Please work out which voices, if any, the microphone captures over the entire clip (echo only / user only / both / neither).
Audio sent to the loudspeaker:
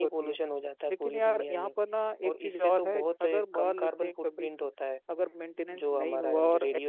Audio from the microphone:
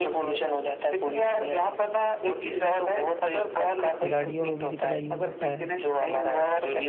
both